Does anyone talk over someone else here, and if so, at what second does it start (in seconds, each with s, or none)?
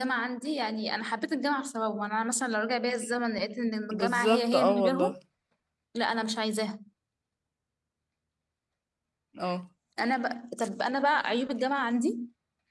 3.9 s